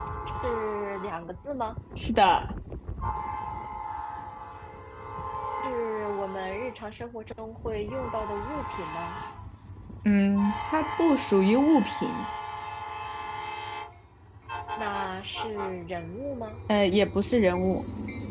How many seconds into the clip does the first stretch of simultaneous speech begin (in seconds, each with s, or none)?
none